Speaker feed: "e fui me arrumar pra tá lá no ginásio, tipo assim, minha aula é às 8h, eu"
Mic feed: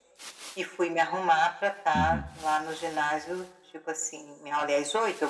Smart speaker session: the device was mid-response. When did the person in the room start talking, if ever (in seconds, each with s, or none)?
1.9 s